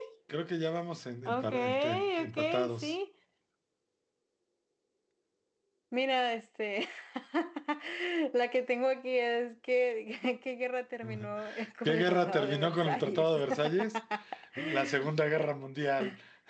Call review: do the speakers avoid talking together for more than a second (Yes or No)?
No